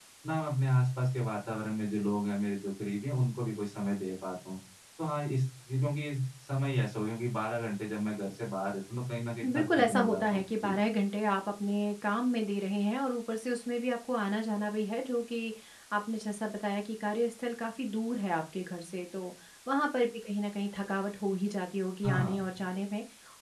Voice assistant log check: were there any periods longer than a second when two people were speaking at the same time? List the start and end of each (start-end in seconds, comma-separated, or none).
9.5-10.7